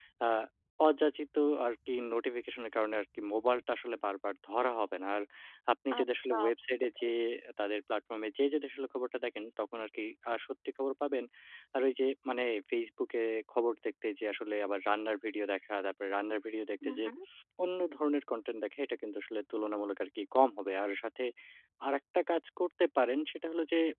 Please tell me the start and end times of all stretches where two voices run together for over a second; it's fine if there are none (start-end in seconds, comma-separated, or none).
6.0-7.2